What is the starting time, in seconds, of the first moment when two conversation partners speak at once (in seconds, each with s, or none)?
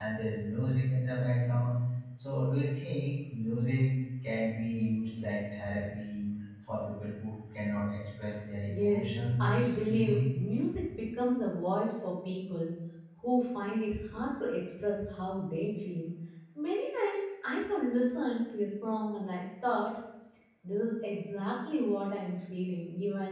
8.6 s